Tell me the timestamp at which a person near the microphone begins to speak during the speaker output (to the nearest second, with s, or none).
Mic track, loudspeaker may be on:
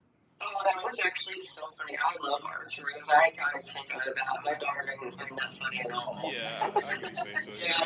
6 s